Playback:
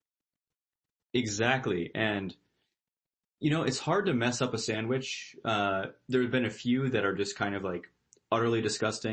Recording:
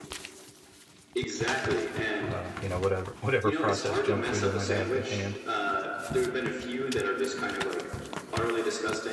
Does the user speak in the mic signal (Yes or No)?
Yes